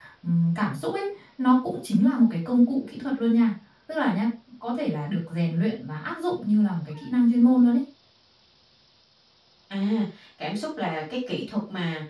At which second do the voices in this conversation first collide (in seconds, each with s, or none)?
none